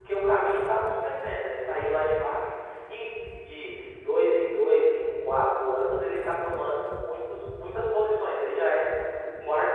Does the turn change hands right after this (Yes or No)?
No